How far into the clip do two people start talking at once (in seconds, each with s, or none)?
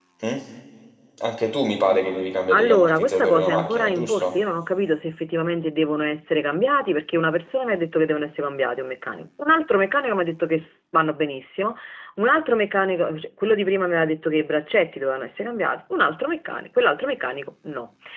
2.5 s